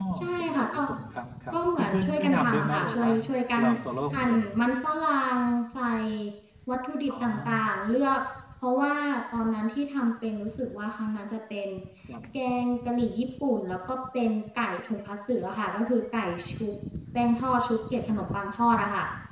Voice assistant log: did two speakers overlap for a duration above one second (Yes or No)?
Yes